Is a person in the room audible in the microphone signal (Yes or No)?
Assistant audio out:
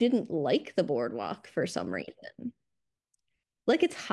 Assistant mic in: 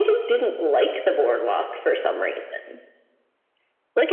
No